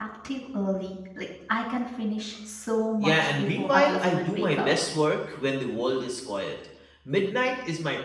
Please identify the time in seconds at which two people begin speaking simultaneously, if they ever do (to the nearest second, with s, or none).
3 s